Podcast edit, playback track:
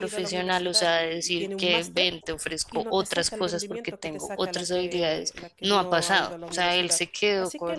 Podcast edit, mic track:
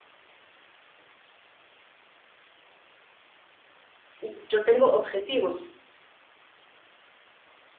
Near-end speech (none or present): present